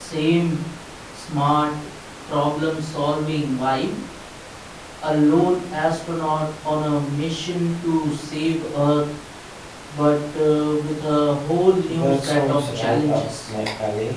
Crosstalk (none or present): present